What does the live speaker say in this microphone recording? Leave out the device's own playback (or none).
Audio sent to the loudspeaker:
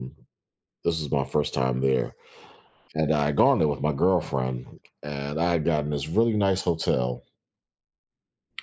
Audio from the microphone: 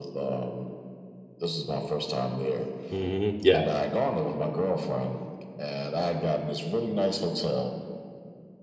Mhm. Yeah.